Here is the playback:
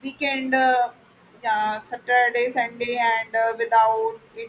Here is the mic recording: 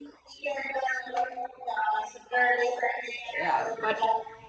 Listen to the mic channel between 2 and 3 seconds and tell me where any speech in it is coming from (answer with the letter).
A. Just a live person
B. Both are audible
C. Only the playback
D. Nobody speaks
C